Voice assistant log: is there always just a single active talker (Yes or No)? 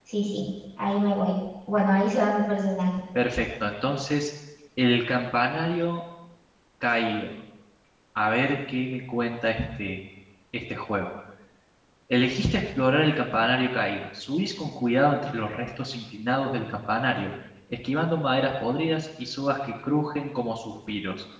Yes